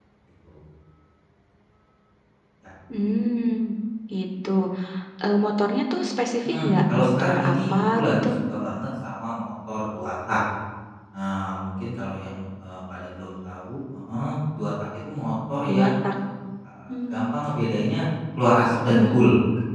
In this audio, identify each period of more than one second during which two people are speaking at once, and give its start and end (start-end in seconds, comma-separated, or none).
6.4-8.3